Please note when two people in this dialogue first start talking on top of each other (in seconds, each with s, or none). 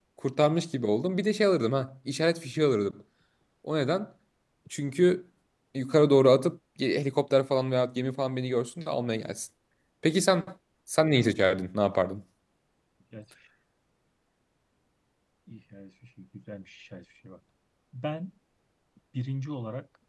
none